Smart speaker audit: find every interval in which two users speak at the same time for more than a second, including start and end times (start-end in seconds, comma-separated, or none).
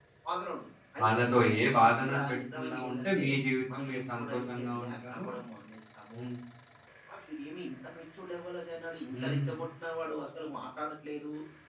2.0-3.2, 3.7-5.2